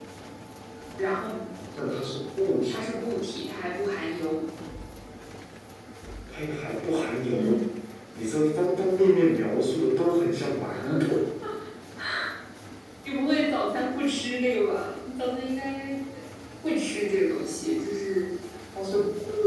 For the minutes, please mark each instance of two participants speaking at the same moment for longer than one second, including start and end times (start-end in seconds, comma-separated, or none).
none